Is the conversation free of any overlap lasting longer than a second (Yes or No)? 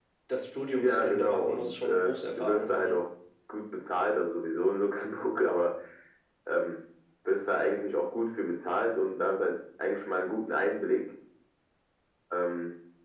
No